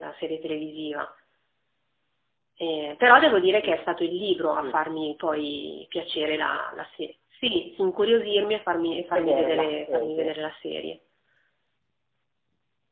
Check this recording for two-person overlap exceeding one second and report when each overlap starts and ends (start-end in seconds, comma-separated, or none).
9.1-10.3